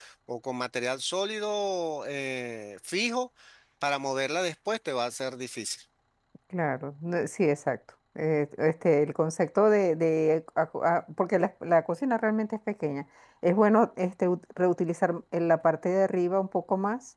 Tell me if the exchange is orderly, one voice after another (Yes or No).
Yes